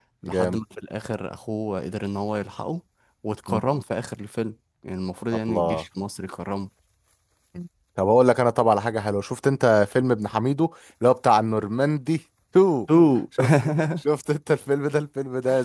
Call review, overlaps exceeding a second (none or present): none